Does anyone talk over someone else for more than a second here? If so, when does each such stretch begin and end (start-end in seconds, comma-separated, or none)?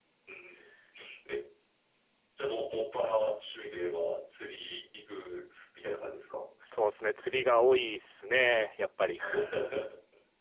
none